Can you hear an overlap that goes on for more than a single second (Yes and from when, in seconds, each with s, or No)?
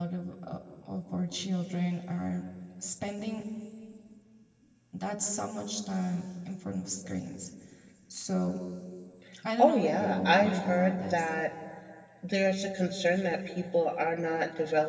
Yes, from 9.6 s